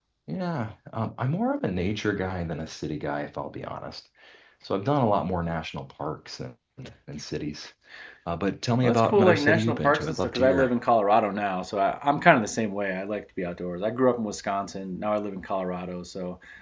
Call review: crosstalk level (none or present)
present